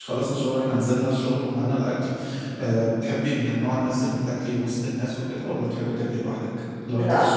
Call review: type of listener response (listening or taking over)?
taking over